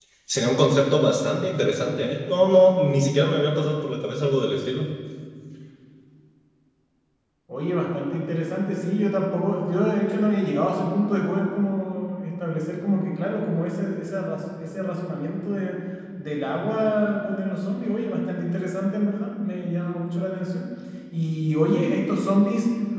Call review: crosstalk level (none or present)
none